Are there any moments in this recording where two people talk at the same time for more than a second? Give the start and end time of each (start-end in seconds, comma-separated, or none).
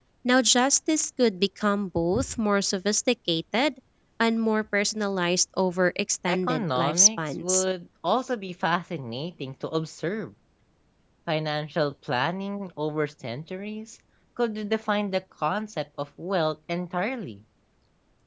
6.3-7.6